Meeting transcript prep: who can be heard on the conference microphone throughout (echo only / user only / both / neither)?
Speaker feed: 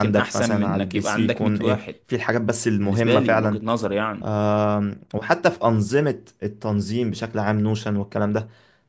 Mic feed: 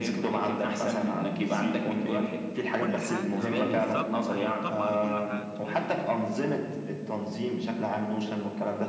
both